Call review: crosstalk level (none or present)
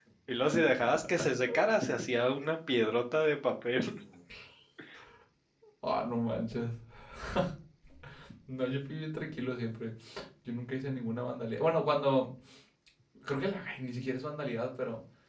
none